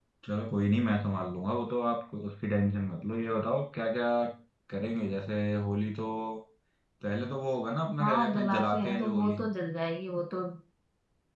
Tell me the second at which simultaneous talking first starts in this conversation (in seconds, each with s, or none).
8.0 s